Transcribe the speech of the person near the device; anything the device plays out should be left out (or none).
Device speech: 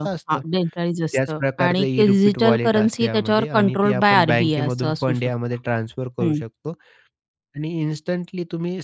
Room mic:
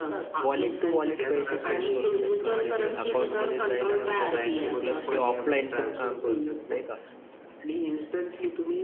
वॉलेट टू वॉलेट पैसे सेंड करू शकता. म्हणजे अकाउंटमध्ये जाईल अशी गरज नाही. प्लस हे ऑफलाईन पण काम करतं, नाही का?